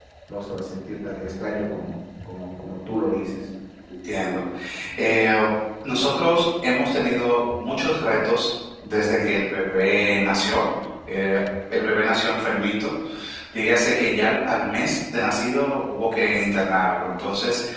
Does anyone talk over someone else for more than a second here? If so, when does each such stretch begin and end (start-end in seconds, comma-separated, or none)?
none